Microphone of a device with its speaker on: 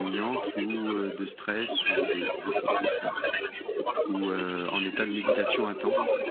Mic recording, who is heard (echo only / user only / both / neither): both